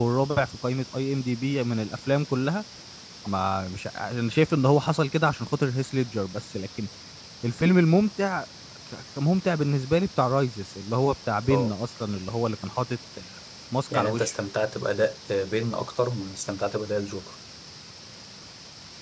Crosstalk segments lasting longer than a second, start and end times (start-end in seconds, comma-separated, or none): none